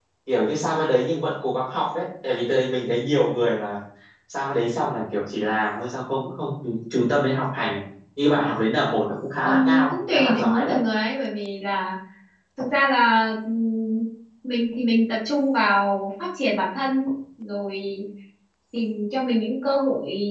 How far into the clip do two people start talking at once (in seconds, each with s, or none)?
9.4 s